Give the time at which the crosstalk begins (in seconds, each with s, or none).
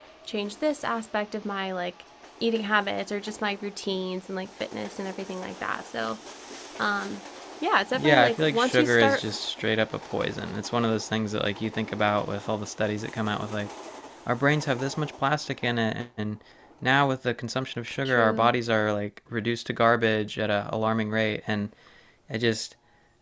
8.0 s